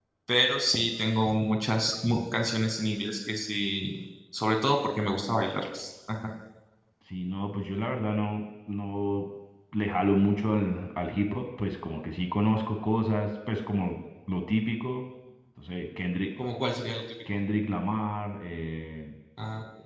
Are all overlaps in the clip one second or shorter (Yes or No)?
Yes